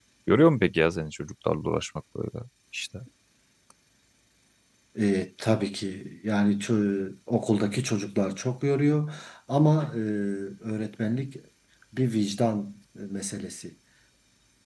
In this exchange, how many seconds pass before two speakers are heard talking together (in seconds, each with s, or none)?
none